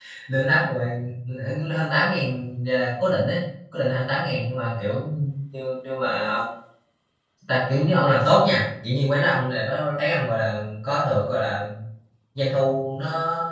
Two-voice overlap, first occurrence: none

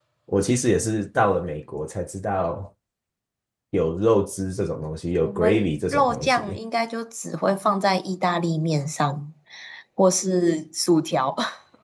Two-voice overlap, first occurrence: 5.2 s

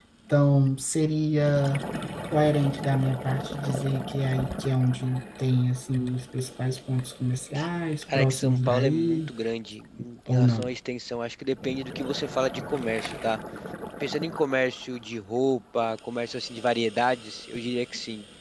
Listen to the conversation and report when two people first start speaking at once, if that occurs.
8.0 s

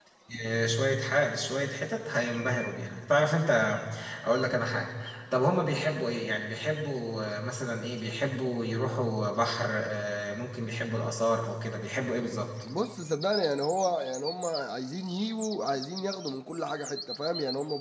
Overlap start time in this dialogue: none

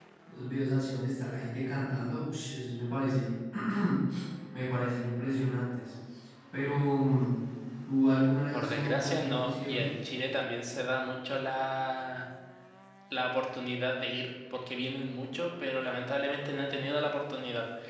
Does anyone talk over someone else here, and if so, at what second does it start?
8.5 s

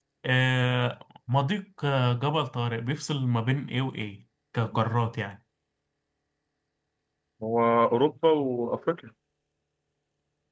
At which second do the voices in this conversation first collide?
none

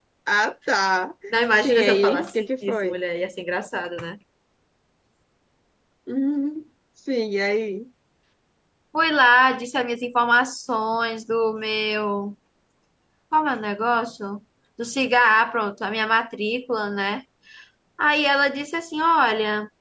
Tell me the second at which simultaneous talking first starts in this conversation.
1.6 s

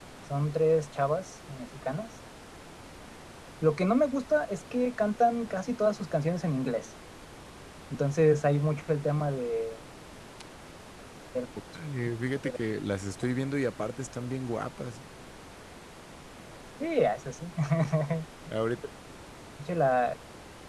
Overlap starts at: none

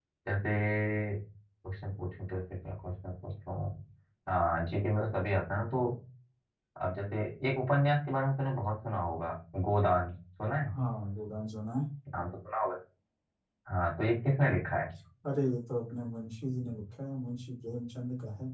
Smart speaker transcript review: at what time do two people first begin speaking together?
none

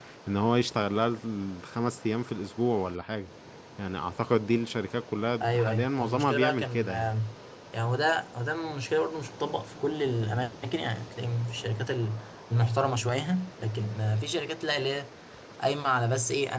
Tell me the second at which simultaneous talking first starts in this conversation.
5.4 s

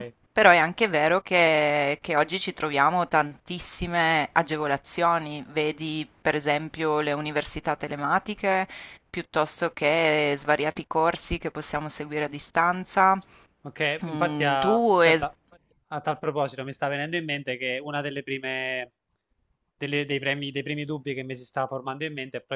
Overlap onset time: 14.0 s

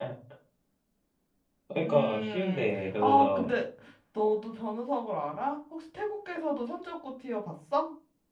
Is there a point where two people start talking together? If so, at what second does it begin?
1.8 s

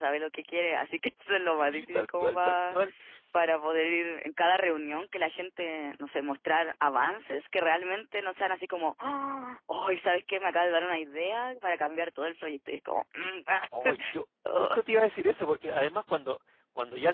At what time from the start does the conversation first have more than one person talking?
1.6 s

